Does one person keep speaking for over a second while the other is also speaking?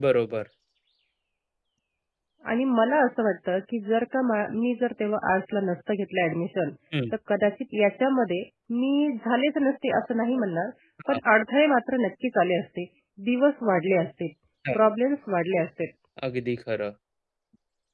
No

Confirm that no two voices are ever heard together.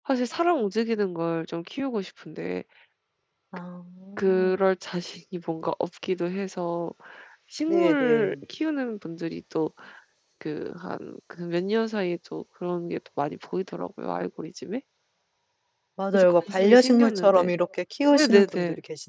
No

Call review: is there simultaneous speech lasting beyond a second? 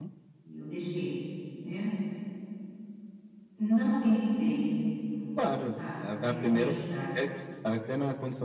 Yes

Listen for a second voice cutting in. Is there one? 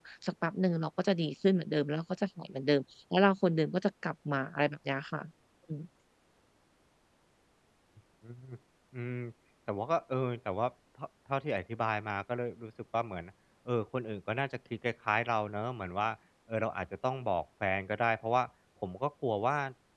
No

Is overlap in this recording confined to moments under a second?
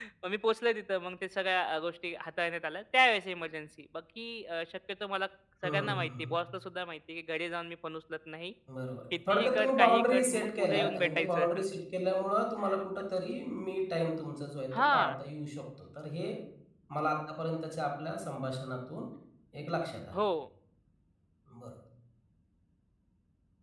No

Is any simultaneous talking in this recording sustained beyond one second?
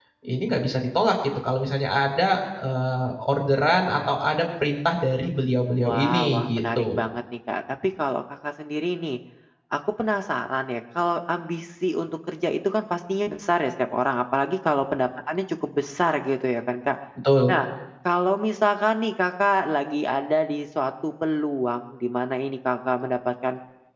Yes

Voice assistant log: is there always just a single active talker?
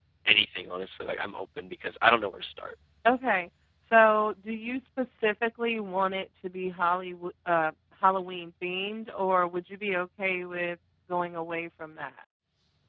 Yes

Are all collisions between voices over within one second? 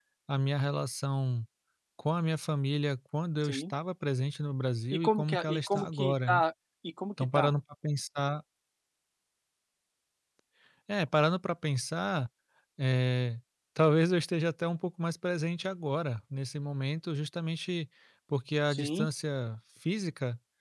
No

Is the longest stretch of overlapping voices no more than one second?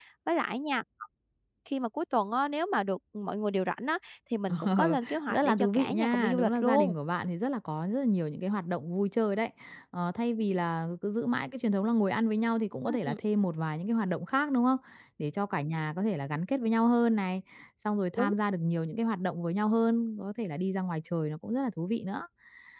No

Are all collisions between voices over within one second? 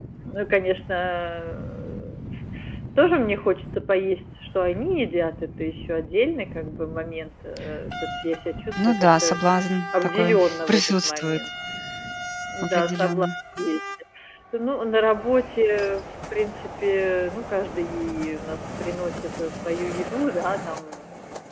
No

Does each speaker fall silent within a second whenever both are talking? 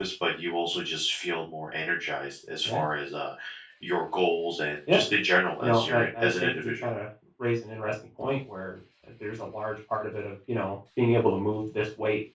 No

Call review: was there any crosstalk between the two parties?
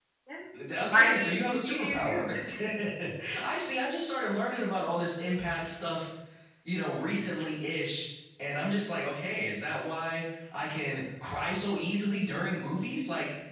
Yes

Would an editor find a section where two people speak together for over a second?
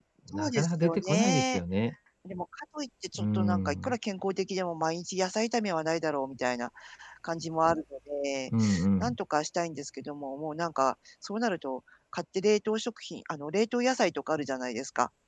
Yes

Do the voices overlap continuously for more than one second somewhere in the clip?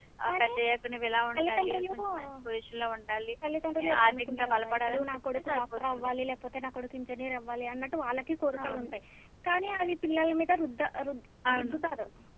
Yes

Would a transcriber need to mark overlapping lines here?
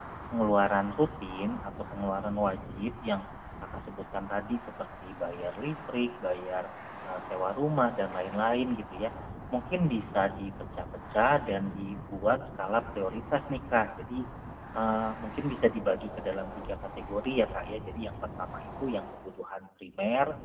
No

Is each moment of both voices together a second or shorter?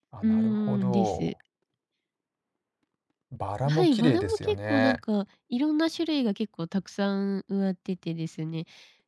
No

